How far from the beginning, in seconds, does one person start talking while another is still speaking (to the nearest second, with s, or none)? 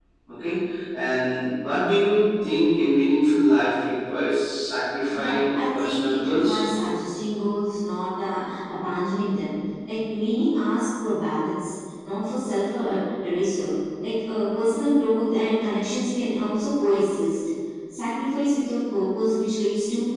5 s